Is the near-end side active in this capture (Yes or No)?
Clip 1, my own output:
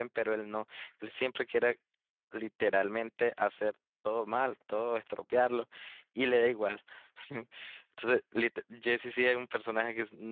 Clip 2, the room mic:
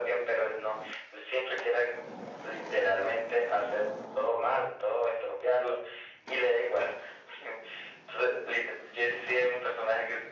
No